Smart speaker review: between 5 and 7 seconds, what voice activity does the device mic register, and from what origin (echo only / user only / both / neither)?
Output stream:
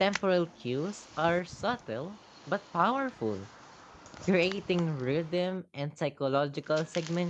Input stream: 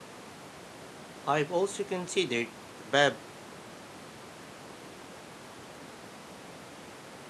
neither